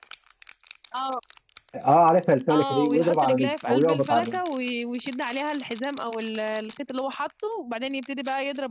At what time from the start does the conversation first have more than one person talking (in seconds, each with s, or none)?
2.5 s